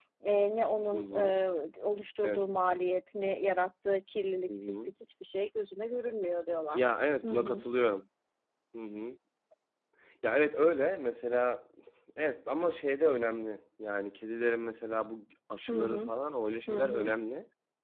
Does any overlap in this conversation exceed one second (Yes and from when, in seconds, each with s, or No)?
No